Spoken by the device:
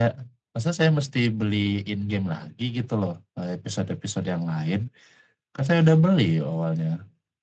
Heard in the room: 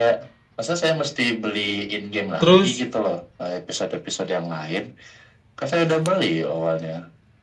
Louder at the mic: user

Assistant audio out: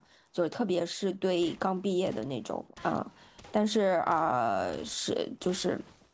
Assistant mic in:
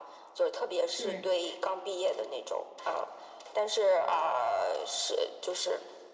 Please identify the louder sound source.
echo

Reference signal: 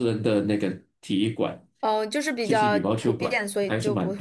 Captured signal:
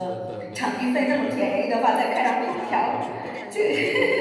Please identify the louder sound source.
user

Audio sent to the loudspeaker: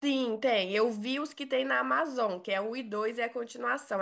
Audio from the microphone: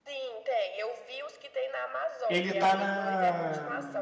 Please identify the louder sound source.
user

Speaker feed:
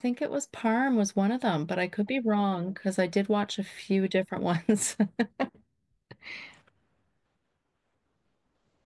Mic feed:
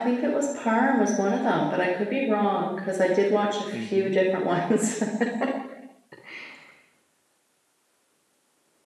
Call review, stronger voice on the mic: echo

